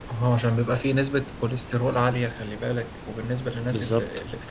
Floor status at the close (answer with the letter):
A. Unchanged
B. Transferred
A